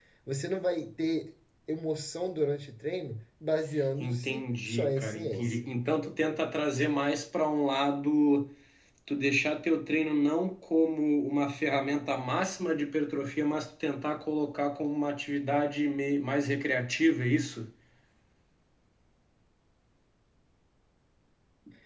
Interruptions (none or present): present